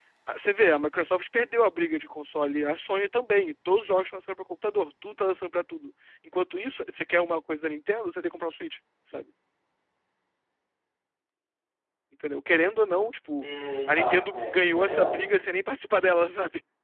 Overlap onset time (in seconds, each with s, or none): 13.9 s